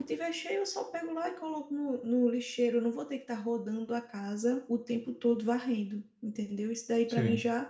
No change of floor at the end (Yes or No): Yes